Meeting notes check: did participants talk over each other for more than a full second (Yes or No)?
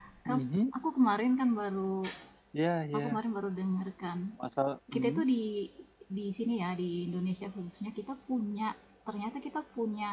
No